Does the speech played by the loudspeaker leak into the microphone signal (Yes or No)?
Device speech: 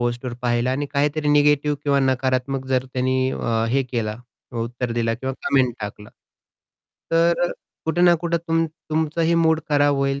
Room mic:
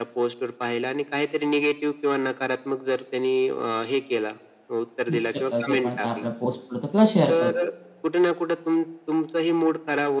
Yes